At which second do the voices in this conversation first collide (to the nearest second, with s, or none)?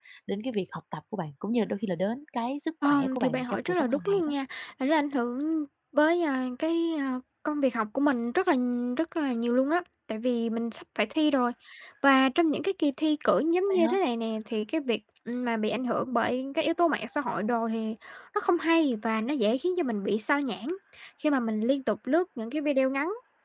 3 s